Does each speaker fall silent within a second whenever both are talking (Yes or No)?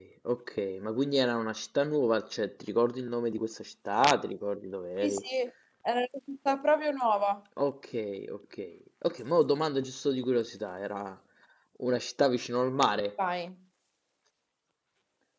Yes